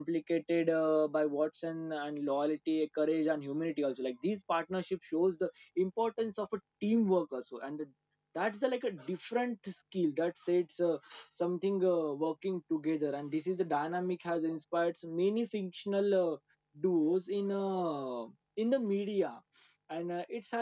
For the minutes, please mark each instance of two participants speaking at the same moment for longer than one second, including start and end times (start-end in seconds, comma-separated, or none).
none